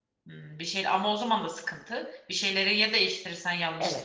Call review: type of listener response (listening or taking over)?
taking over